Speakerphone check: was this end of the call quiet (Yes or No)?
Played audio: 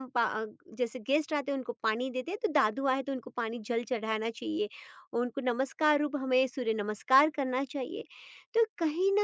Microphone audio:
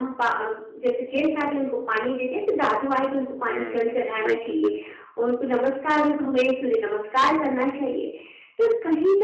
No